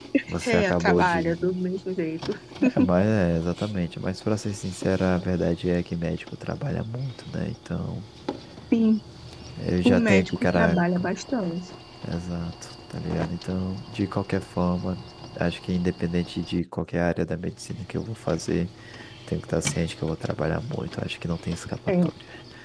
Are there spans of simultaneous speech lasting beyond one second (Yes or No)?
Yes